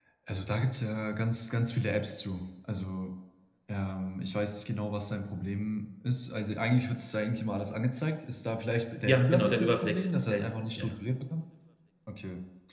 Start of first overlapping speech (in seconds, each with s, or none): 9.1 s